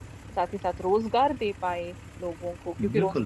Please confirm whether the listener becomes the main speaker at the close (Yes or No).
Yes